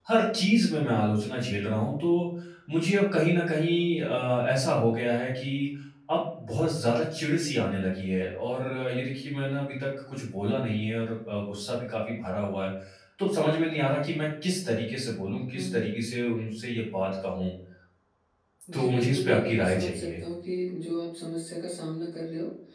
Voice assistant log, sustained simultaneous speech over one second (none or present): present